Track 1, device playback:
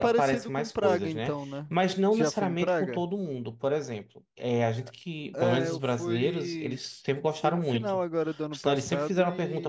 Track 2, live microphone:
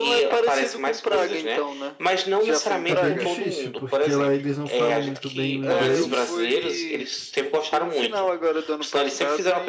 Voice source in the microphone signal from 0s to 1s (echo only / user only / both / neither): echo only